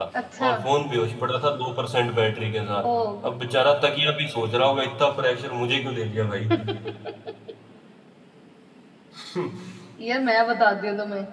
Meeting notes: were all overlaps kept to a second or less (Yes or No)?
Yes